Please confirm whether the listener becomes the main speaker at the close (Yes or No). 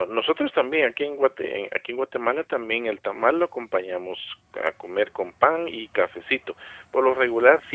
No